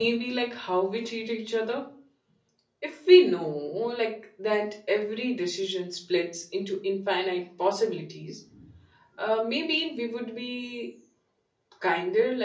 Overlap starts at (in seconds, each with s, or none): none